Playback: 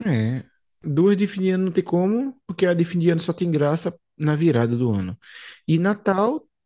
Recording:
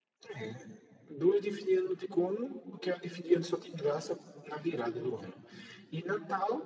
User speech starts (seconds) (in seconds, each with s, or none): none